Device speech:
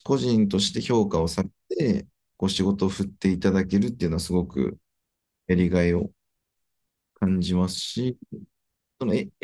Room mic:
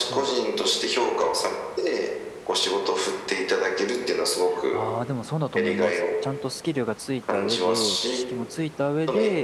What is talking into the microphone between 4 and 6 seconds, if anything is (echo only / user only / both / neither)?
both